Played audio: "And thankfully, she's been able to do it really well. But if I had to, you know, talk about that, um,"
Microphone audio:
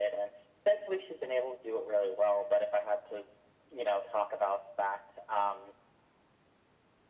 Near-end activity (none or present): none